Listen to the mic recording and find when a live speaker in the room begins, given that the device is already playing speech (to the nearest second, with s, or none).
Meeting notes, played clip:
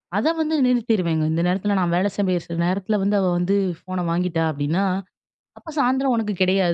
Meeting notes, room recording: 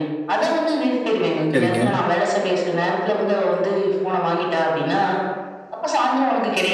2 s